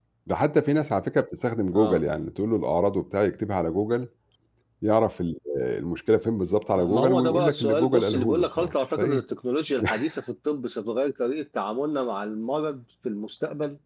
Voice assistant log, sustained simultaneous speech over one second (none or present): present